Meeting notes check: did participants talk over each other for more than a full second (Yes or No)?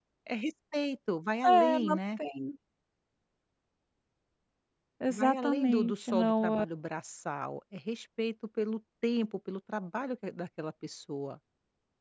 Yes